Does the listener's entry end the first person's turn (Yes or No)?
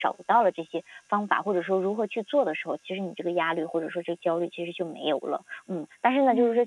No